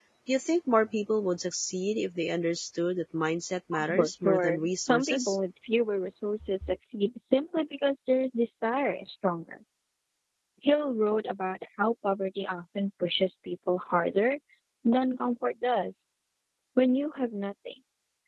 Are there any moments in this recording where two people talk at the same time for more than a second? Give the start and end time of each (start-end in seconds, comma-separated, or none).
3.9-5.3